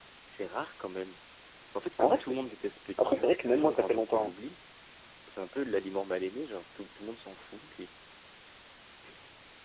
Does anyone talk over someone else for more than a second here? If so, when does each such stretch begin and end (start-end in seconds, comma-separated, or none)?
3.0-4.3